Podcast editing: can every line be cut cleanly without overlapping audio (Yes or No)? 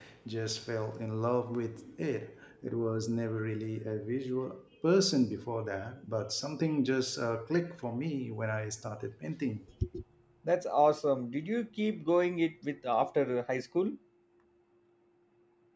Yes